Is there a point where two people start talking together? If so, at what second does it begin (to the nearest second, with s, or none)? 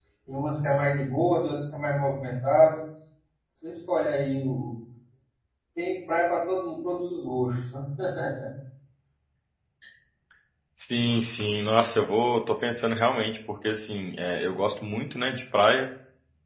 none